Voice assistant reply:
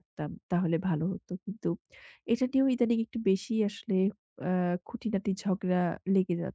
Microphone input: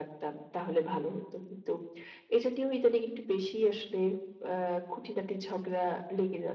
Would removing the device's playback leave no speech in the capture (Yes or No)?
Yes